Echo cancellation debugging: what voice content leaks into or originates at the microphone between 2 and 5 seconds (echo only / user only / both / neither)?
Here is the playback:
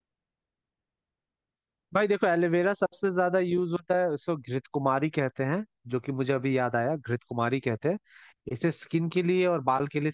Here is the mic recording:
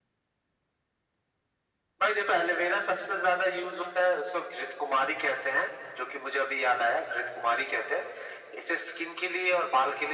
echo only